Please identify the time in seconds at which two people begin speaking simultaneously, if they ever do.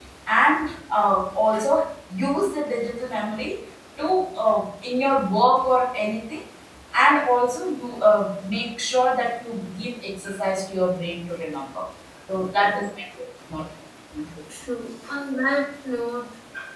none

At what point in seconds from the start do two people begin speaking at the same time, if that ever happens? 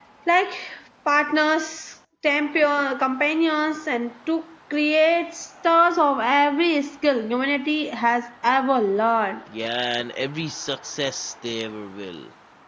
none

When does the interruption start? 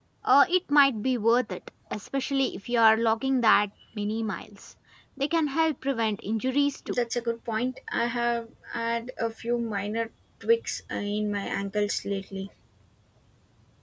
none

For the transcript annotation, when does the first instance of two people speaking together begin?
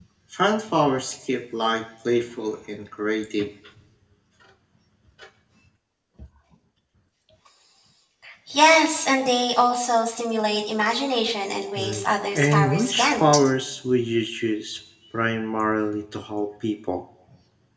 12 s

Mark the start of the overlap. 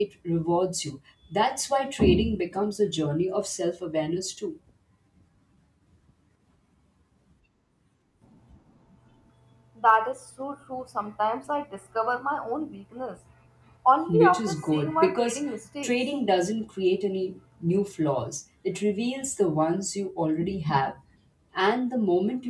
14 s

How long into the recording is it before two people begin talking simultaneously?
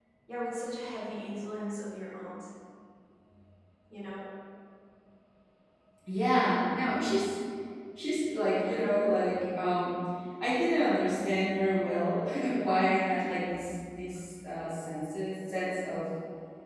none

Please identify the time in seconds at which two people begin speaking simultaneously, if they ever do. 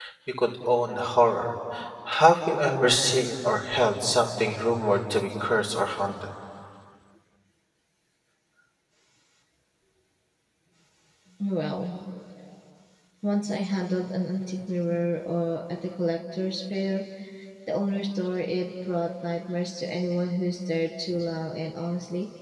none

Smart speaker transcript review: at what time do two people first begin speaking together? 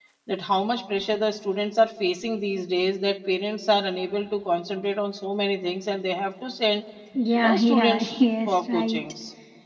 7 s

